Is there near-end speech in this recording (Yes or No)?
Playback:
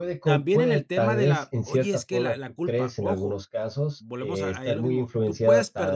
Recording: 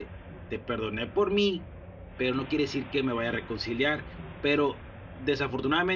Yes